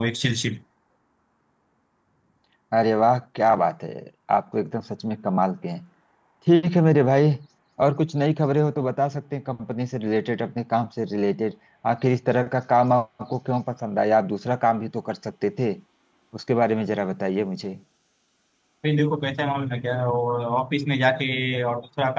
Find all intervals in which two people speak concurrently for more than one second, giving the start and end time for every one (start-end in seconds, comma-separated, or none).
none